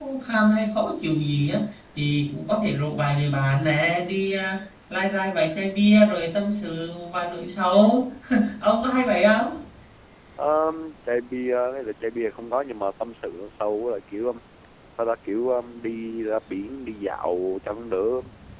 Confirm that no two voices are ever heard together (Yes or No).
Yes